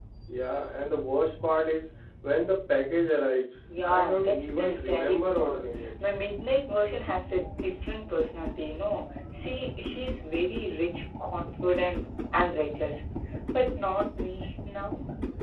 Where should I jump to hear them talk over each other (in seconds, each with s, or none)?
3.7 s